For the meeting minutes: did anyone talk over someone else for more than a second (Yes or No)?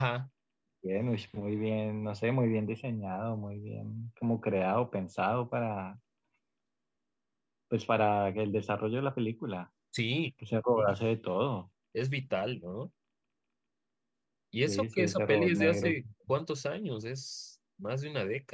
Yes